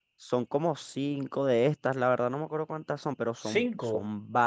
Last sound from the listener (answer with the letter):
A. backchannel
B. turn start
A